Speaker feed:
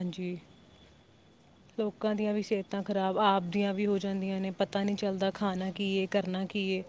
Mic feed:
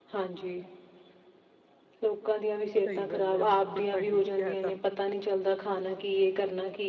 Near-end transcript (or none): ਸਹੀ ਗੱਲ ਐ ਬਿਲਕੁਲ ਤੁਹਾਡੀ ਇਹ ਤਾਂ